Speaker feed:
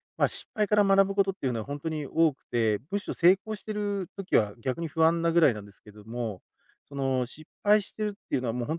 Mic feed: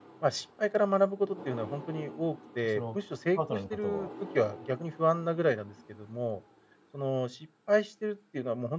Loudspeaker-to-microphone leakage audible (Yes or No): Yes